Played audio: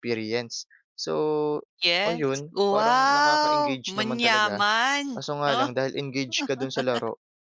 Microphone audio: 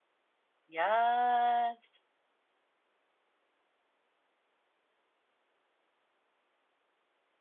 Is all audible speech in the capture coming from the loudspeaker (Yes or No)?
No